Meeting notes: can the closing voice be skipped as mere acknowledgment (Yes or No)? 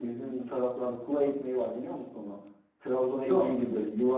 Yes